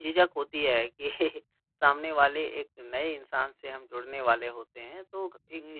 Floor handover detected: No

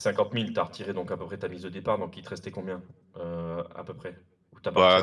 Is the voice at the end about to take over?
Yes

